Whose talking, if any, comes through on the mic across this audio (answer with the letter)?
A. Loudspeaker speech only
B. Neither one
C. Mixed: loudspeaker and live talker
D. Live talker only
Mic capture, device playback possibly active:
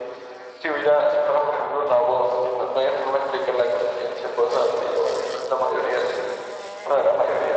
A